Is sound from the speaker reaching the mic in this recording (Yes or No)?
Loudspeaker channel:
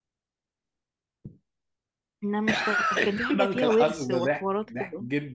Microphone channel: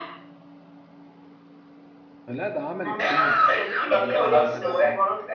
Yes